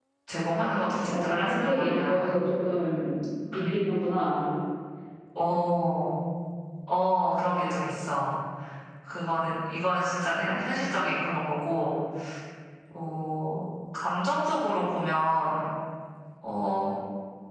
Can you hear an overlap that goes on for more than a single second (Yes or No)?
Yes